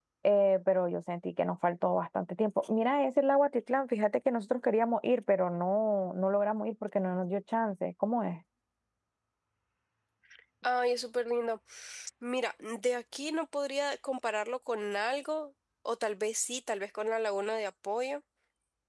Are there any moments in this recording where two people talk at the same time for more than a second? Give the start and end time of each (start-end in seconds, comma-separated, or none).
none